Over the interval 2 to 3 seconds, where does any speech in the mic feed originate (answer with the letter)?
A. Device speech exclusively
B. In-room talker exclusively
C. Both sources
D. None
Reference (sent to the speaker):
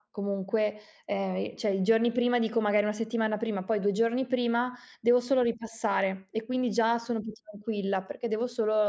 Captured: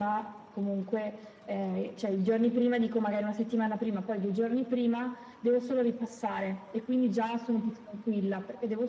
A